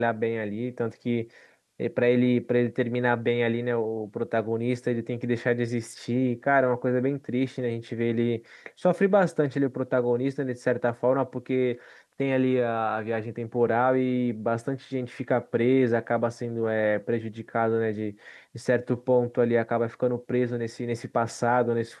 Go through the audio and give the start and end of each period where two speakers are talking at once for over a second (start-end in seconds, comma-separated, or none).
none